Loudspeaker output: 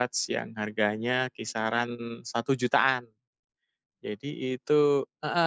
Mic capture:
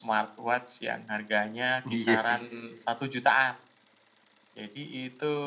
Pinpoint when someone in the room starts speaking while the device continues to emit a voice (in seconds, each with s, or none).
1.8 s